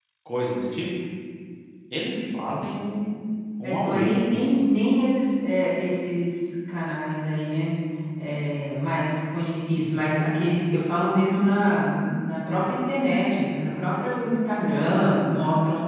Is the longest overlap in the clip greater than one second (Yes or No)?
No